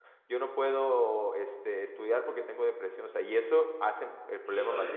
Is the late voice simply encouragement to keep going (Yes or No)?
No